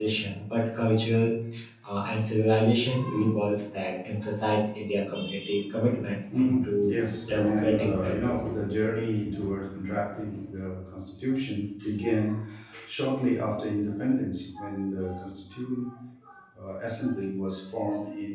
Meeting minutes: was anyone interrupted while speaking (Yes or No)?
Yes